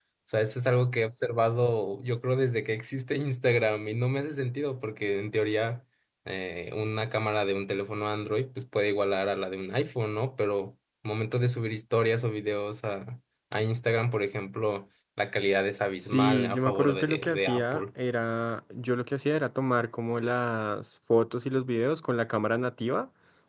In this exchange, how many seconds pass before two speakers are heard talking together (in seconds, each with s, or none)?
16.1 s